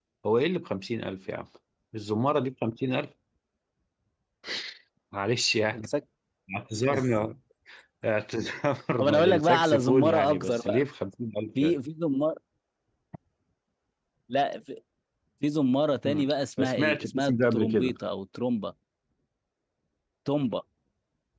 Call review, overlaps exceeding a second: present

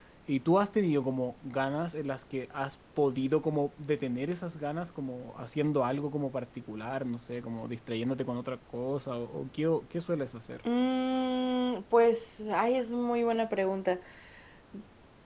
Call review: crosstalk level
none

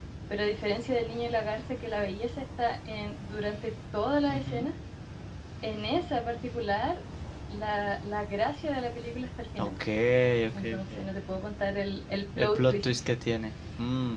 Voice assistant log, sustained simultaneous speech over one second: none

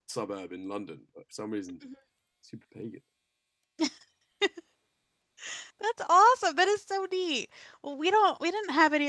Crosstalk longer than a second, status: none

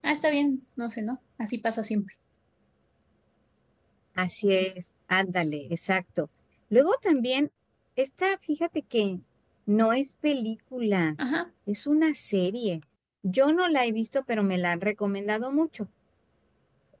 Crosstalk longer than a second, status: none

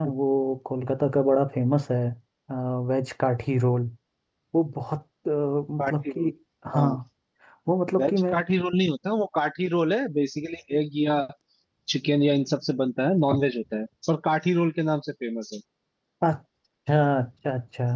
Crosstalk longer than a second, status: none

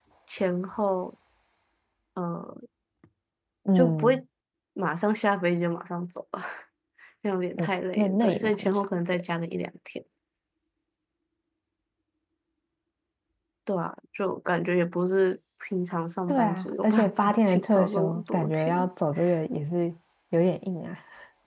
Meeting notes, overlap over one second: present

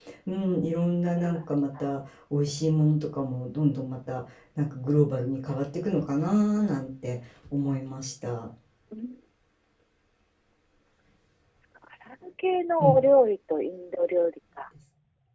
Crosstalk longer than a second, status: none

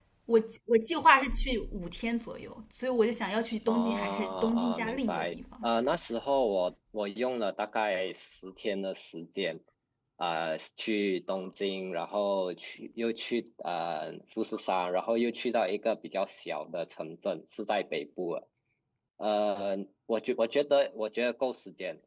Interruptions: present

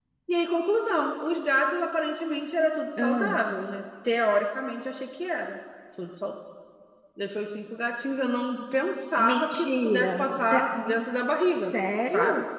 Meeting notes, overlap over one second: present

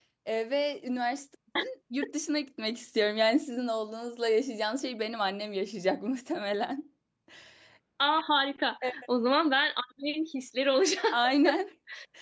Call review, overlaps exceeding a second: none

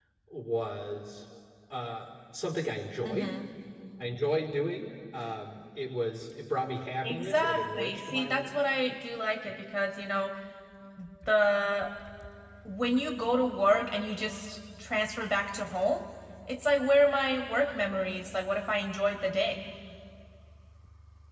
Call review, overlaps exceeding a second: present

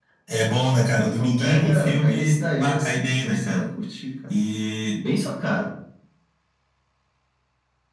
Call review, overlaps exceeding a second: present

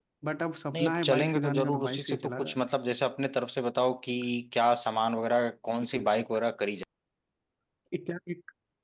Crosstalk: present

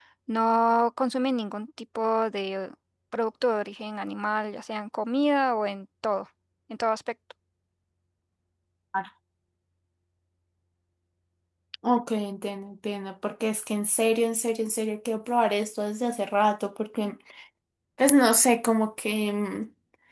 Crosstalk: none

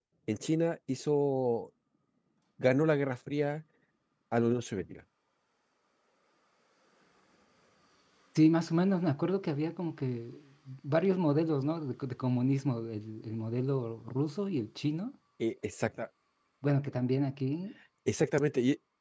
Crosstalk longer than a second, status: none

